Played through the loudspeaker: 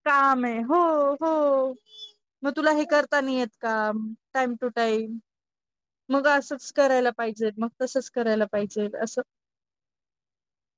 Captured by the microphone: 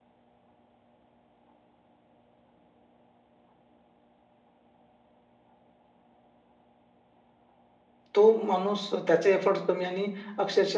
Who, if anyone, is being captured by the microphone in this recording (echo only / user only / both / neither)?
user only